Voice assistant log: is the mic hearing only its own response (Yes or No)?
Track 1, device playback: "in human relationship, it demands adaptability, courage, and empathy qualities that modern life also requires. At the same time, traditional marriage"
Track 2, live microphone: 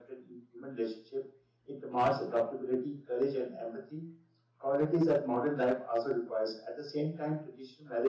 Yes